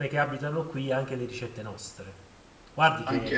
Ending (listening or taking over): listening